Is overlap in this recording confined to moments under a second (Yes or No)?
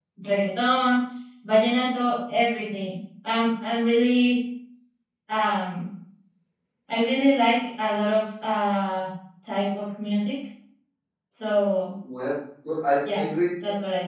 Yes